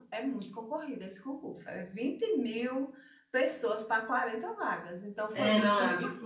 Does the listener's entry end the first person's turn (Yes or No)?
Yes